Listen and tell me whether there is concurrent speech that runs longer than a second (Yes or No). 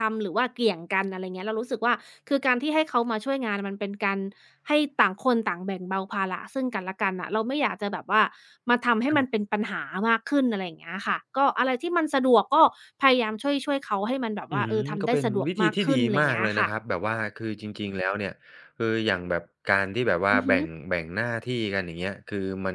Yes